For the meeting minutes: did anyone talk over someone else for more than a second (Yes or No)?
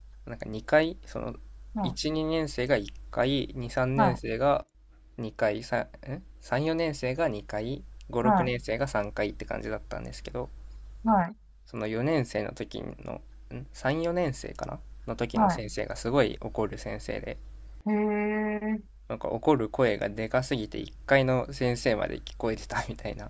No